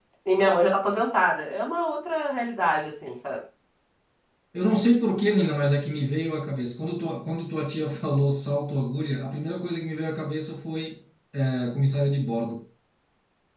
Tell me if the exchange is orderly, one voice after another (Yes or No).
Yes